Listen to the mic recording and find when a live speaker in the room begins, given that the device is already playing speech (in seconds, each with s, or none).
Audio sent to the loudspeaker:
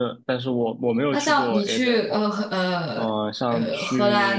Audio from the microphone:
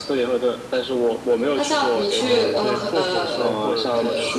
2.1 s